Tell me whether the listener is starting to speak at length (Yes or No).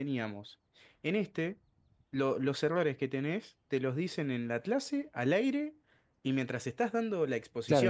Yes